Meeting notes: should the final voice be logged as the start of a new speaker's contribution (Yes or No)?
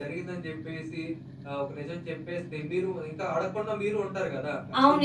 Yes